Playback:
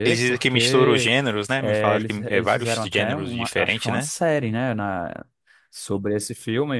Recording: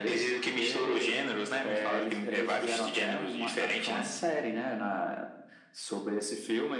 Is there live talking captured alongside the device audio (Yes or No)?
No